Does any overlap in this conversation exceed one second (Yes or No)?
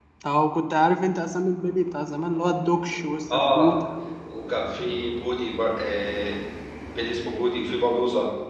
No